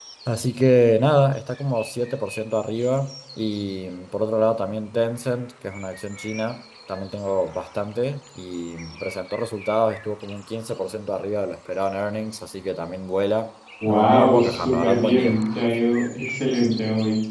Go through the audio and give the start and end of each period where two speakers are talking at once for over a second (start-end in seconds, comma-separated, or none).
13.9-15.4